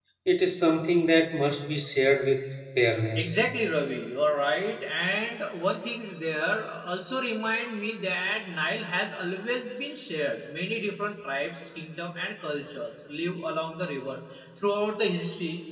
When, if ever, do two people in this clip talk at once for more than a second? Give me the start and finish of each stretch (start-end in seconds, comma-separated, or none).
none